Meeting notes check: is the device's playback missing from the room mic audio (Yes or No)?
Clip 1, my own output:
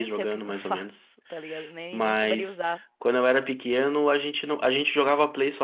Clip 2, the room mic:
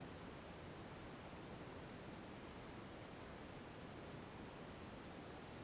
Yes